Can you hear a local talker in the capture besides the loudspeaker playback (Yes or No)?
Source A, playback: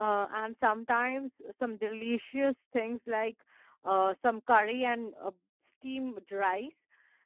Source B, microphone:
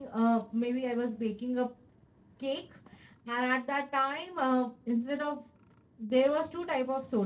Yes